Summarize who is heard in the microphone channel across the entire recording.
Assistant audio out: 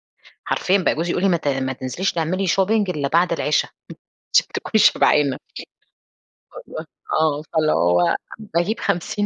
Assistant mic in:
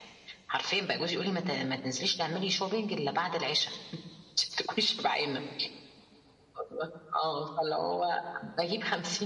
echo only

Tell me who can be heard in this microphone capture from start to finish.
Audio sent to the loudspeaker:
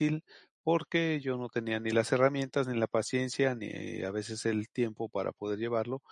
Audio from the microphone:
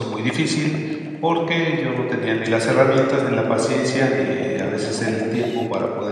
echo only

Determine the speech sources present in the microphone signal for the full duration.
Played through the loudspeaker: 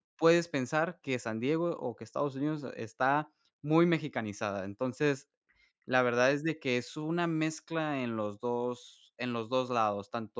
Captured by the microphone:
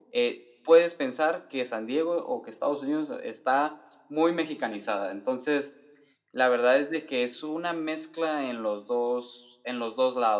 echo only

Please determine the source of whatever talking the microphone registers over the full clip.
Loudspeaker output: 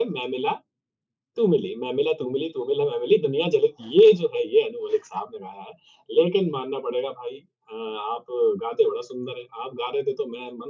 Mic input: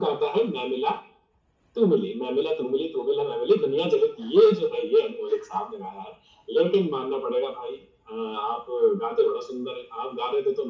echo only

